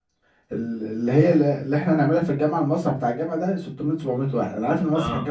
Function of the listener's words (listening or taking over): listening